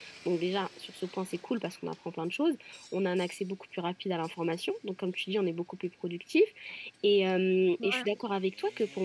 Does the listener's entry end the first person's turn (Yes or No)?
No